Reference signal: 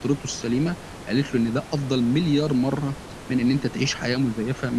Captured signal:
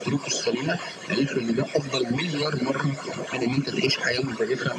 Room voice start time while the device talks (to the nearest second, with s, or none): none